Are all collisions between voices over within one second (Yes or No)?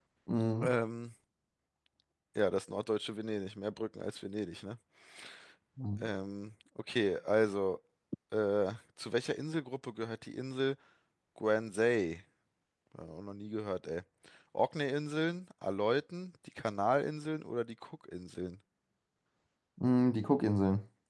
Yes